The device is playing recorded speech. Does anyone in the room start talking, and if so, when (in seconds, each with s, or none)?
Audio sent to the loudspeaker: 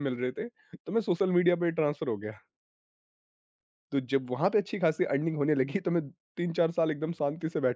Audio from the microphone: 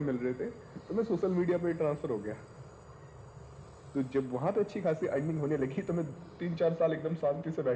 none